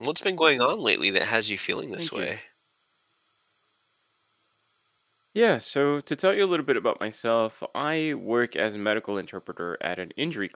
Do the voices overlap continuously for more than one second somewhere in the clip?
No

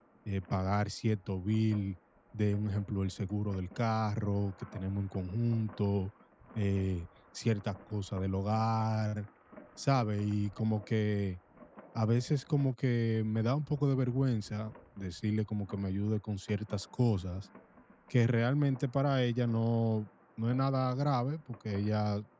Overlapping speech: No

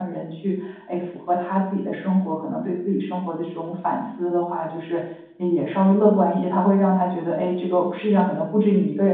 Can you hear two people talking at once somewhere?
No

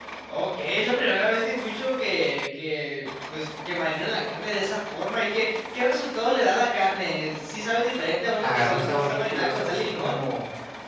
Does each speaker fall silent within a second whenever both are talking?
No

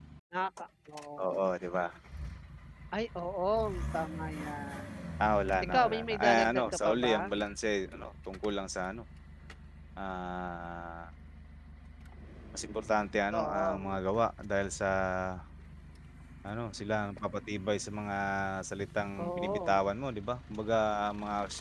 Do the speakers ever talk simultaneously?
Yes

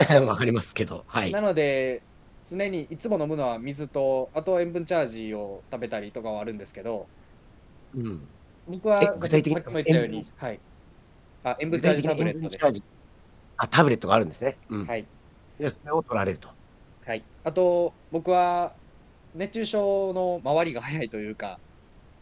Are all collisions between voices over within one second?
No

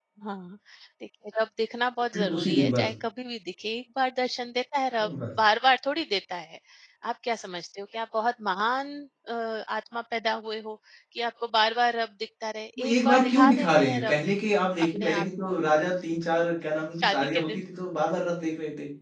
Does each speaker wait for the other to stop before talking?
No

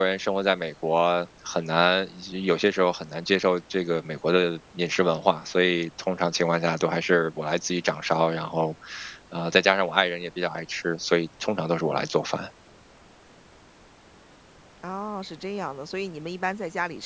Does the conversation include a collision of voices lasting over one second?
No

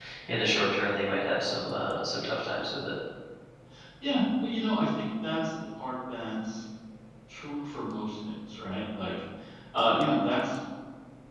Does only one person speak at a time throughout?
Yes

